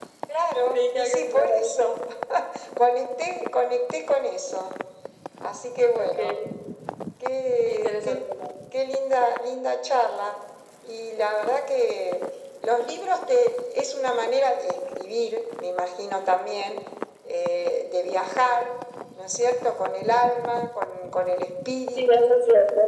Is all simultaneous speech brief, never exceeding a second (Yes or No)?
No